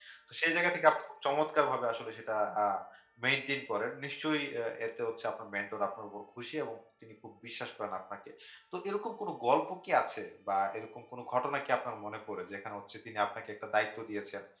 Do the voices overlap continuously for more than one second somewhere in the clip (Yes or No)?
No